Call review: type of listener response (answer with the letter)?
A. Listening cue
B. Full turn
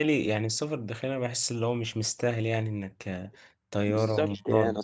B